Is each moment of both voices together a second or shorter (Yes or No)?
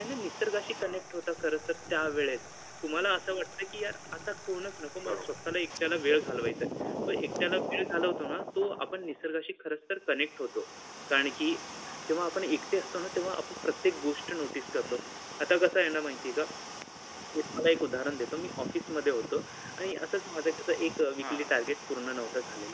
Yes